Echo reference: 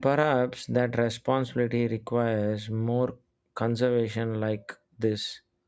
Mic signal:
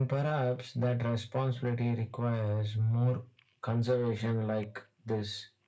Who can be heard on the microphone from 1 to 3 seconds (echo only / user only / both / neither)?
echo only